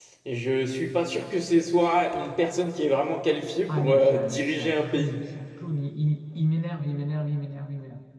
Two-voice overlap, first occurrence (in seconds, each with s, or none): 3.7 s